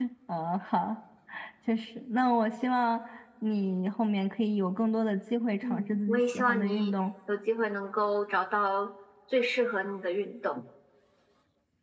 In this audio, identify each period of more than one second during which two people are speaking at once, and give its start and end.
5.7-6.9

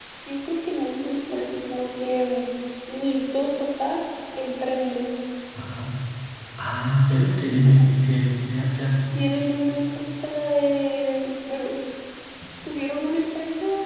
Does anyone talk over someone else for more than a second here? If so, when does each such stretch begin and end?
none

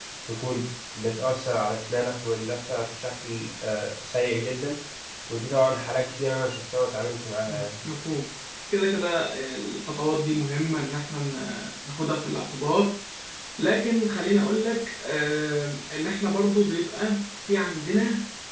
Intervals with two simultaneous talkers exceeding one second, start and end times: none

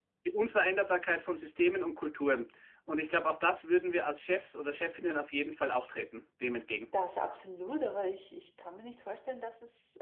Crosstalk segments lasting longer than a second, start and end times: none

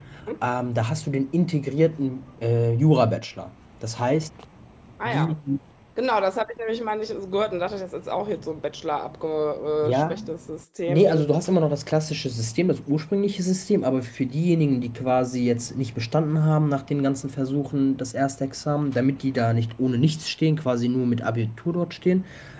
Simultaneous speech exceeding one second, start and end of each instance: none

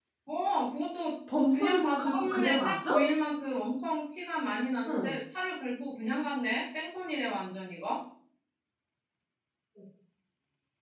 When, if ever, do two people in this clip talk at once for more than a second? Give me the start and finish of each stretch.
1.5-2.8

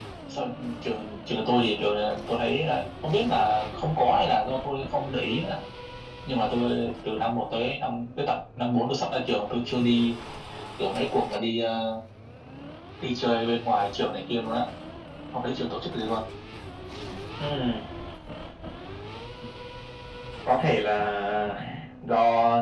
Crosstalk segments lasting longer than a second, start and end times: none

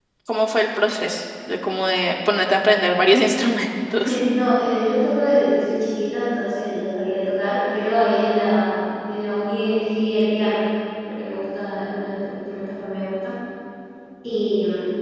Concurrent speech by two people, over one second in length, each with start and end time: none

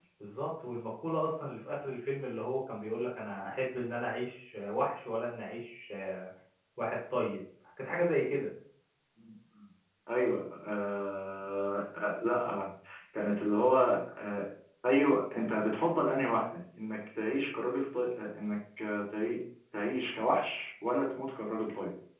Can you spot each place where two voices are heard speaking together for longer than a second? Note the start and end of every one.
none

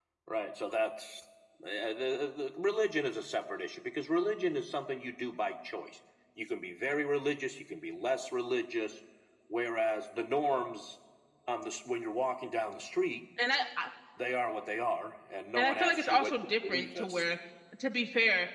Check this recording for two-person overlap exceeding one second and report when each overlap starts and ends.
15.6-17.2

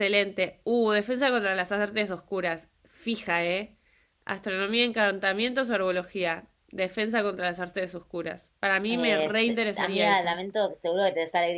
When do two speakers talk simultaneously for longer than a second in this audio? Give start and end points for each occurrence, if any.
8.9-10.3

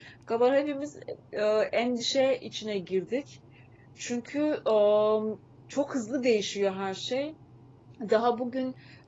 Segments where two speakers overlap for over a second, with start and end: none

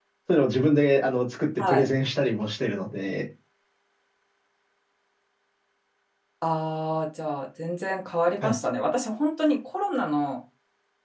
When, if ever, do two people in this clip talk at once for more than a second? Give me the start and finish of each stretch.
none

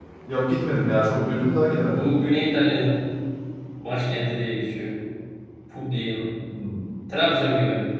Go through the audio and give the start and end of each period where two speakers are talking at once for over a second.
none

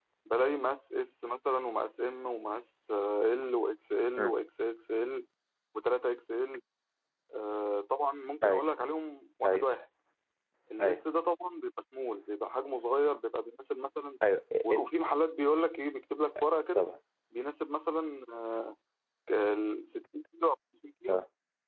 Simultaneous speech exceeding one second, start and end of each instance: none

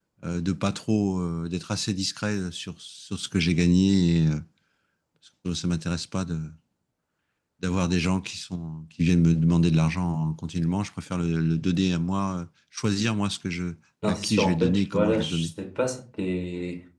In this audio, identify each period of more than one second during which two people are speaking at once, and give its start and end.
14.0-15.5

